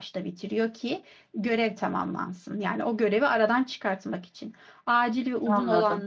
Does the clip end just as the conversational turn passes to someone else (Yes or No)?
No